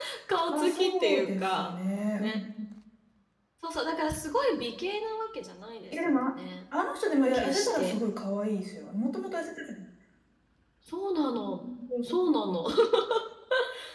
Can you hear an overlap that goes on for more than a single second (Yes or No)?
Yes